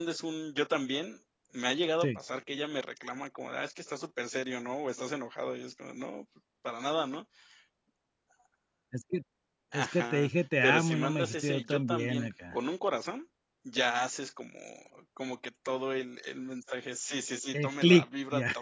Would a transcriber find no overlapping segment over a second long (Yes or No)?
No